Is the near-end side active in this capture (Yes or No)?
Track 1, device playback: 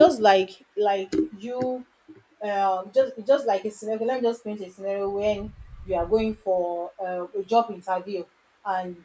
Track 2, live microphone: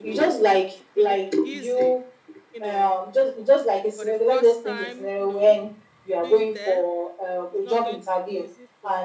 Yes